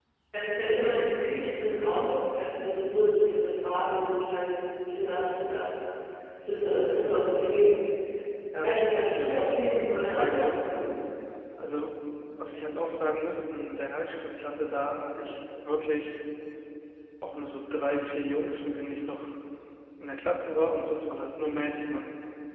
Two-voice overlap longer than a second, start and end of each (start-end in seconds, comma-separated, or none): 8.6-10.6